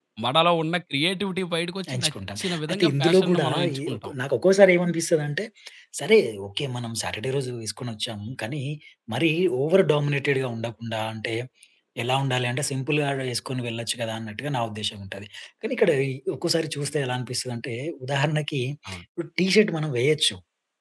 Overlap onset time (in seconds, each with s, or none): 1.8 s